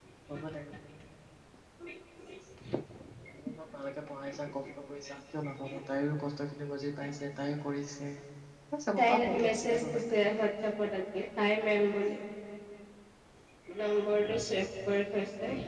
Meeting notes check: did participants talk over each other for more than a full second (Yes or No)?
Yes